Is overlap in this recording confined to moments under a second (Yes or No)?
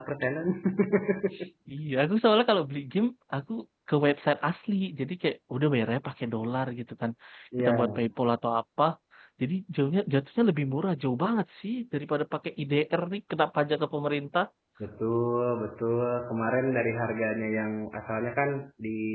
Yes